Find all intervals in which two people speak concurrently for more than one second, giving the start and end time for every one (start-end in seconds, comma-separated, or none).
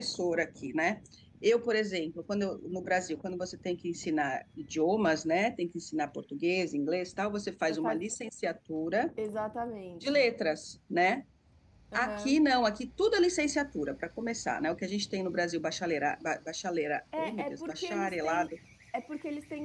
17.2-18.5